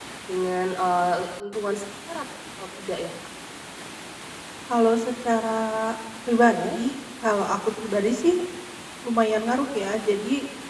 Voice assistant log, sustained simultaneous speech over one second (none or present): none